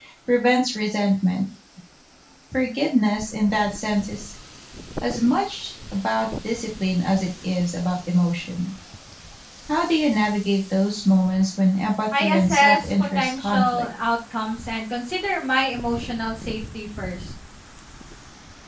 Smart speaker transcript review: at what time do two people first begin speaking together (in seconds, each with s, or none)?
12.1 s